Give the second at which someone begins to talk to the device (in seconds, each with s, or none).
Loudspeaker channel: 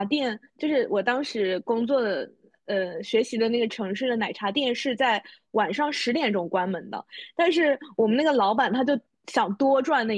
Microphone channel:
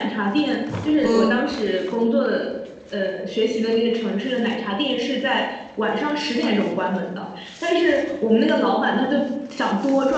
1.0 s